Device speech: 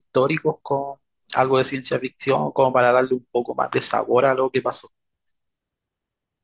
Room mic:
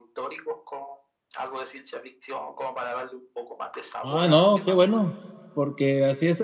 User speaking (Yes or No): Yes